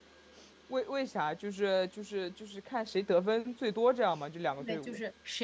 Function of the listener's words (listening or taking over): taking over